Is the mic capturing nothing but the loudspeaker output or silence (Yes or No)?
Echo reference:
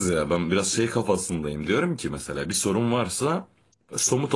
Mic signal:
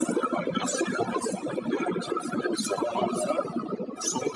Yes